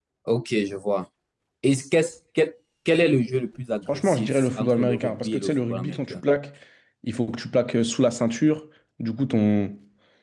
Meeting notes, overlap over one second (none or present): present